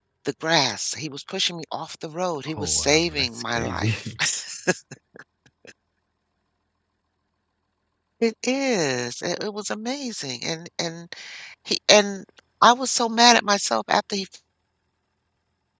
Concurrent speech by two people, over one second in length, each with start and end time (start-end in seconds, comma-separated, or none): 2.6-4.1